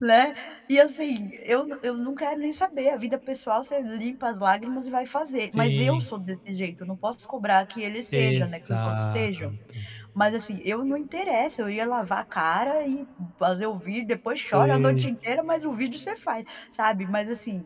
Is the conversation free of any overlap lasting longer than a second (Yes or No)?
No